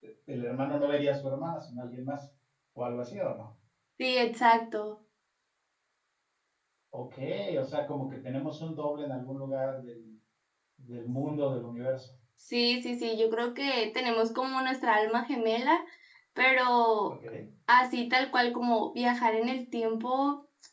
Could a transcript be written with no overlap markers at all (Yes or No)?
Yes